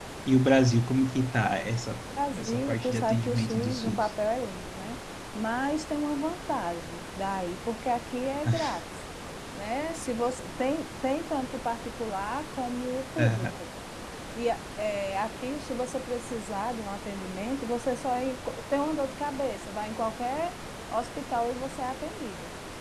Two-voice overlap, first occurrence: 2.3 s

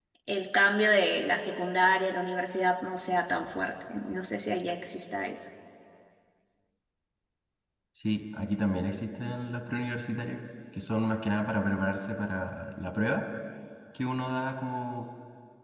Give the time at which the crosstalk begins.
none

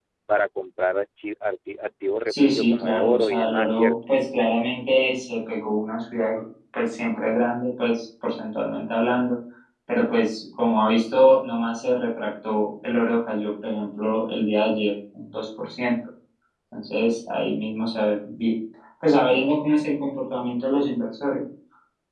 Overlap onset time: 2.3 s

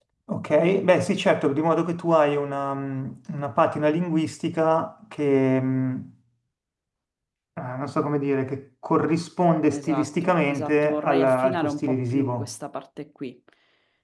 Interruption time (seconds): 9.7 s

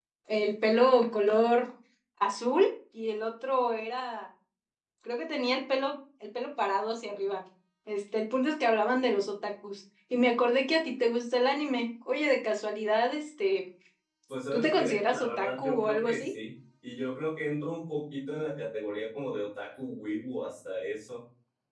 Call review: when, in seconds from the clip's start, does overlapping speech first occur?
14.5 s

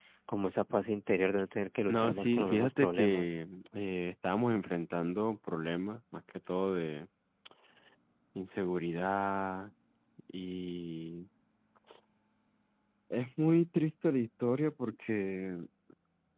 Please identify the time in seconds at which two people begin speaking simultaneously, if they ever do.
1.9 s

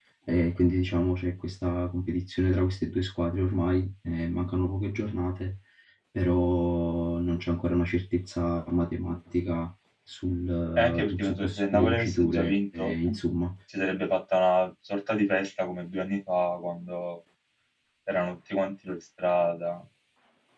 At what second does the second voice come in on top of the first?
10.8 s

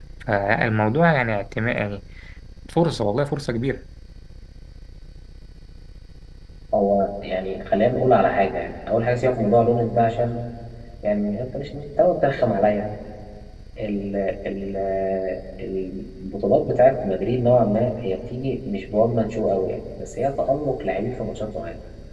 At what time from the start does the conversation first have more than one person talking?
none

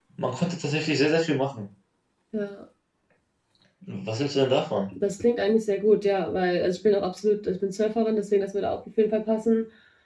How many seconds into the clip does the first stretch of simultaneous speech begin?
none

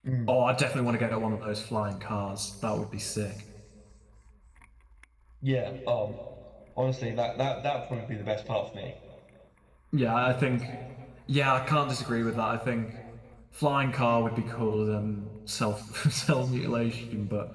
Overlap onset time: none

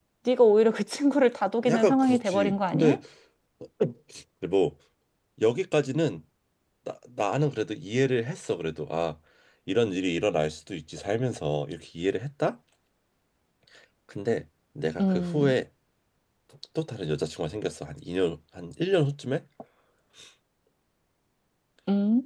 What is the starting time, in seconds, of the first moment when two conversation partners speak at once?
1.6 s

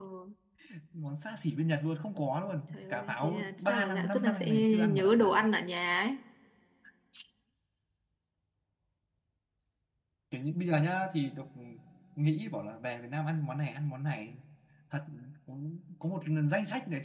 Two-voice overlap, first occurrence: 2.7 s

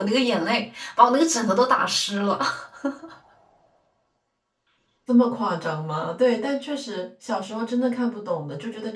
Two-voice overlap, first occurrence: none

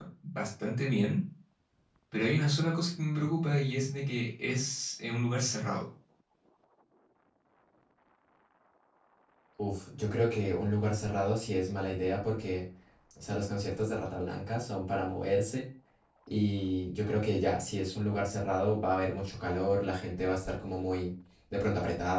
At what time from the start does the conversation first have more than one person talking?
none

